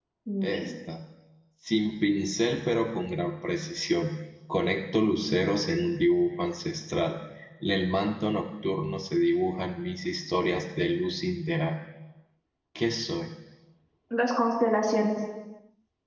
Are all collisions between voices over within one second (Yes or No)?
Yes